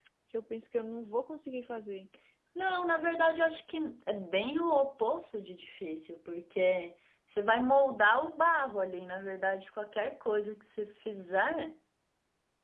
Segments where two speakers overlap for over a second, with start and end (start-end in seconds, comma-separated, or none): none